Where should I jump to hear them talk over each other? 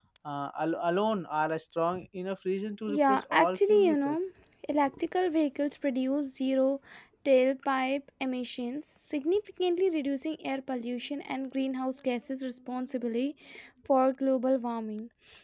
2.9 s

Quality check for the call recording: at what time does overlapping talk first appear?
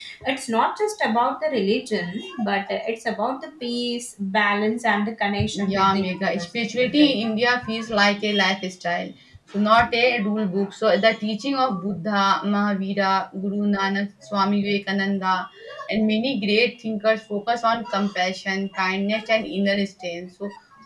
5.5 s

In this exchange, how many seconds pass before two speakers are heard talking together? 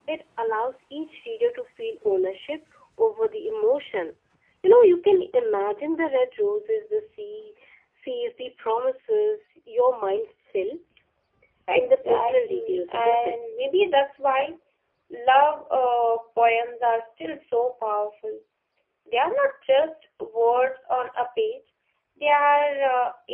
11.7 s

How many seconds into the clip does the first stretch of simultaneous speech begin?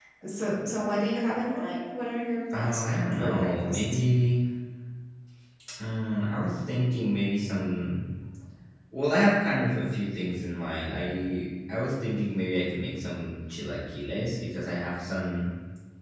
2.5 s

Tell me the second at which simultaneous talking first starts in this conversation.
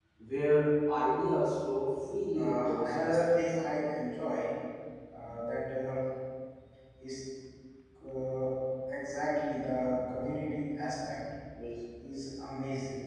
2.3 s

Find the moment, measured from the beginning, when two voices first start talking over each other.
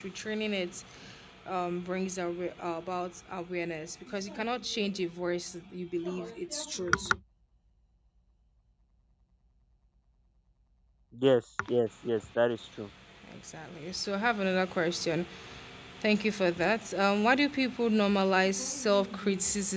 none

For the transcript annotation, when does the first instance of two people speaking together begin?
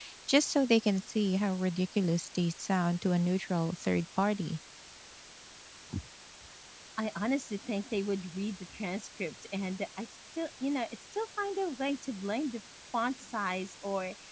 none

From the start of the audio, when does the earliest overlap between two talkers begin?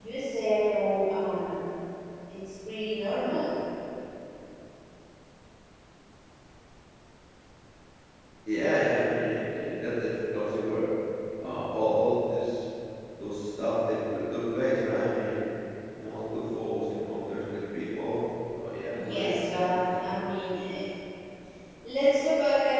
19.0 s

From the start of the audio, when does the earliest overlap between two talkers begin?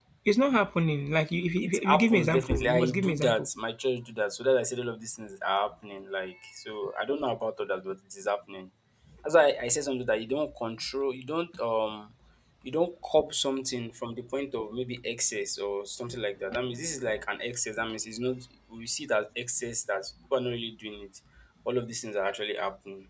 1.6 s

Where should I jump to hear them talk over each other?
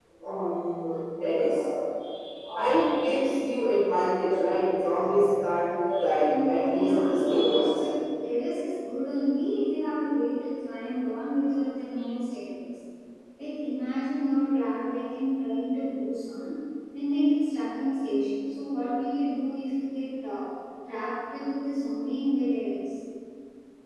6.2 s

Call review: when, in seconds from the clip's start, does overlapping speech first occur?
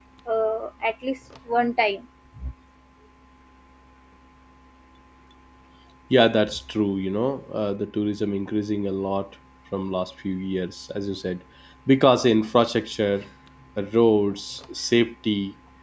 none

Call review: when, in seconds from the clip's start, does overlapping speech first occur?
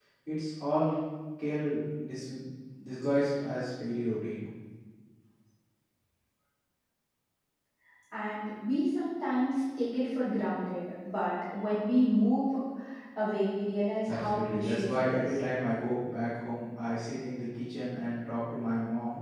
14.1 s

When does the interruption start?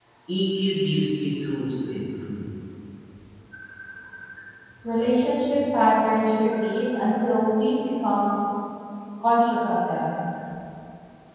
none

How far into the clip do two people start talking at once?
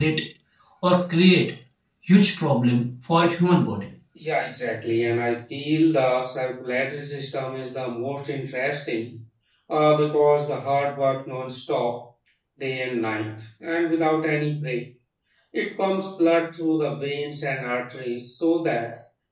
none

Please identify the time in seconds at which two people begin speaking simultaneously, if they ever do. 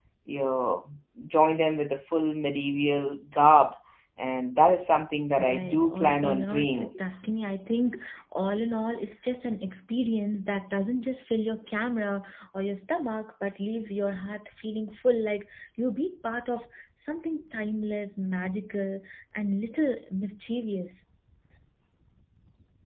5.4 s

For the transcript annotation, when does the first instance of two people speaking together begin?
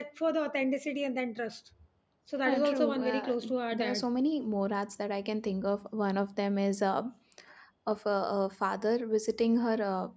2.5 s

